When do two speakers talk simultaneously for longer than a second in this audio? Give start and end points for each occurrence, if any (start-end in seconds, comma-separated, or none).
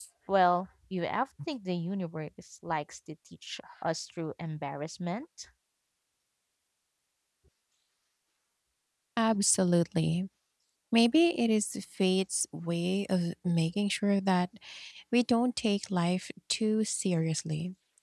none